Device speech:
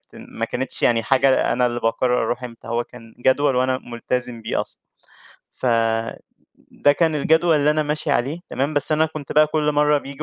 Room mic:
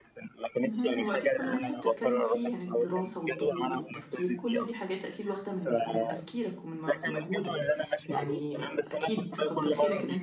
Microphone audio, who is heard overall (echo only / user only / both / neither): both